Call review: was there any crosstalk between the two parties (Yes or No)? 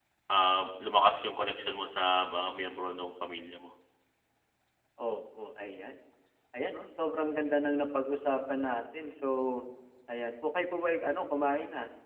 No